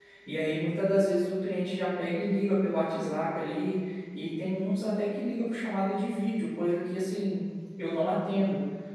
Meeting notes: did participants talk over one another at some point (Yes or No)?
No